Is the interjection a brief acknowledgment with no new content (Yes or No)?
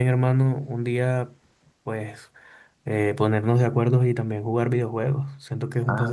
No